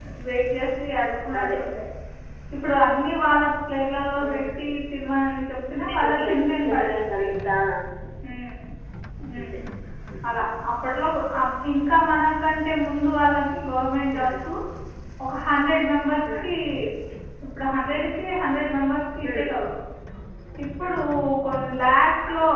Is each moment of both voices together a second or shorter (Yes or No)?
No